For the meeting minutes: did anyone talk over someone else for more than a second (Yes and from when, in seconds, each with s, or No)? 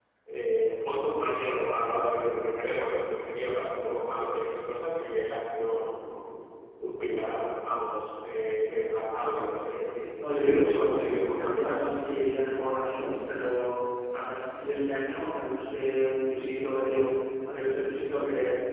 Yes, from 10.2 s